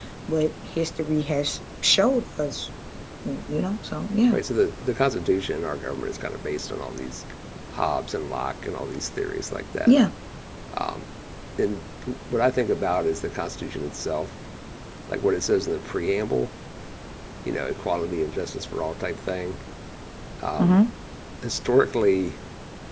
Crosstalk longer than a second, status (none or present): none